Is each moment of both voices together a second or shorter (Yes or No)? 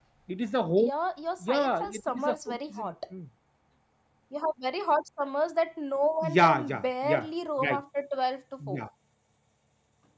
No